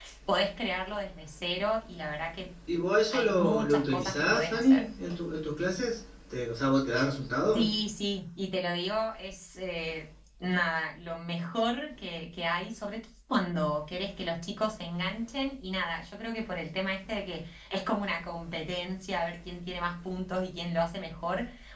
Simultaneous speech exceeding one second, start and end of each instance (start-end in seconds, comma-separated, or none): 3.1-4.8